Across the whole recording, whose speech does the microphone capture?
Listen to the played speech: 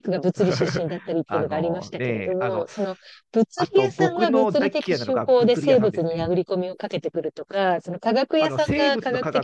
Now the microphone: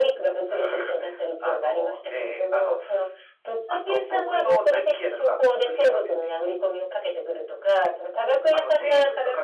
echo only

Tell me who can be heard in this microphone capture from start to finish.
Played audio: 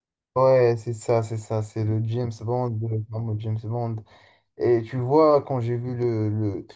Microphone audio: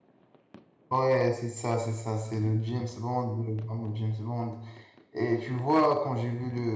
echo only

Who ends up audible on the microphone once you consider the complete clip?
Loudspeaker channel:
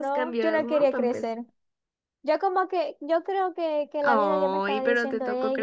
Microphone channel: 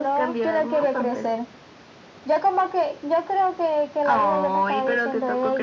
echo only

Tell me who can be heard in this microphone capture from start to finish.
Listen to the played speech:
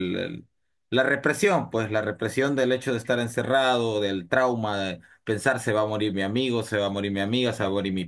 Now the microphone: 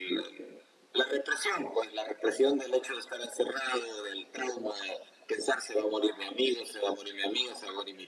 echo only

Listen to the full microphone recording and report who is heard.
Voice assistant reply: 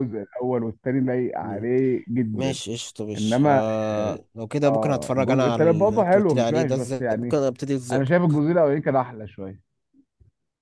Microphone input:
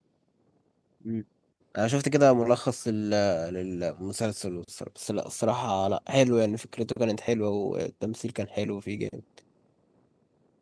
user only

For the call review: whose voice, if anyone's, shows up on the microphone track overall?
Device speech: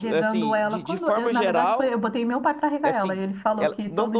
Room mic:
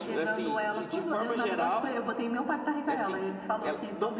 echo only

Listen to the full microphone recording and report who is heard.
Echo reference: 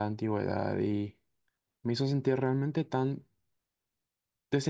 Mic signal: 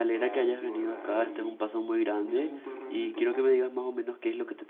both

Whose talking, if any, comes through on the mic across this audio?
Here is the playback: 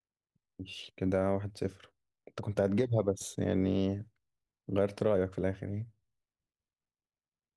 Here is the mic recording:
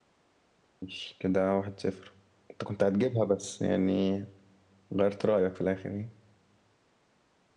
echo only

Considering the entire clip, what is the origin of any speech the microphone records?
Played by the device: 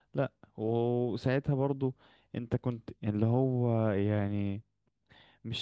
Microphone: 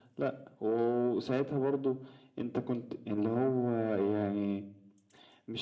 echo only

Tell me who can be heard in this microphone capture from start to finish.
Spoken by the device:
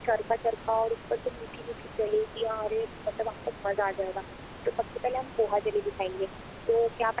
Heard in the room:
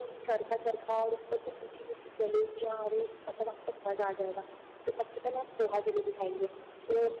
echo only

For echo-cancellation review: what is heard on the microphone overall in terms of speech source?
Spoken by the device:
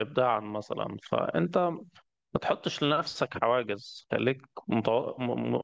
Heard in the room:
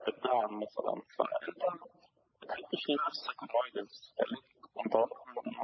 echo only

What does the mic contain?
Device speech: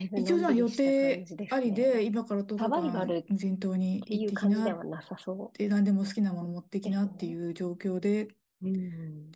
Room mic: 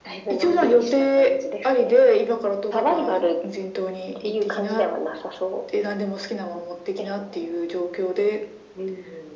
echo only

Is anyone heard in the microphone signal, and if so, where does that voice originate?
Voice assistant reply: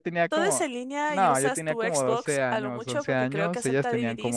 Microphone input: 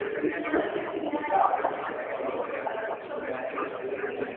echo only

